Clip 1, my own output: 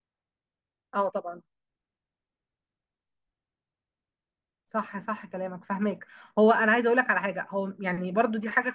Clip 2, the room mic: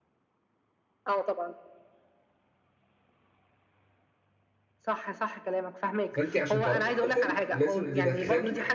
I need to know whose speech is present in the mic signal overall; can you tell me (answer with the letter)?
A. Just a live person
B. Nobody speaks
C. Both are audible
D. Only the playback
C